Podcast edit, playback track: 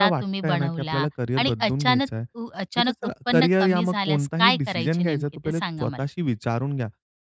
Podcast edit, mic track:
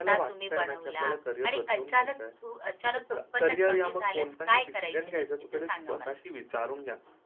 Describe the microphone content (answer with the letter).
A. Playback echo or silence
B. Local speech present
A